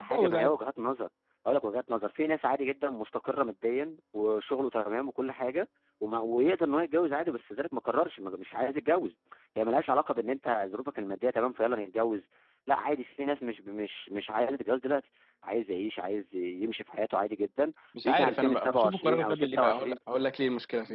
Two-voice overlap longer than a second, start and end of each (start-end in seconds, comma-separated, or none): 18.0-20.0